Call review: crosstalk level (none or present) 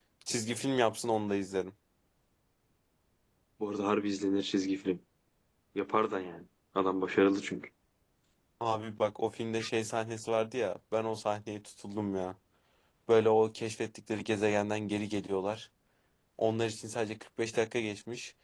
none